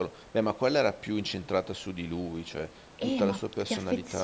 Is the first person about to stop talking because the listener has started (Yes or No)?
Yes